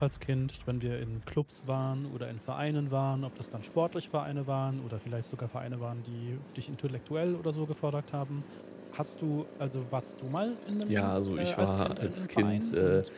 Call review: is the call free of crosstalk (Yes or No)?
No